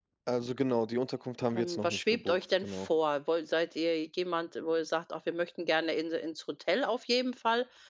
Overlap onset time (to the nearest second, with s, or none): 2 s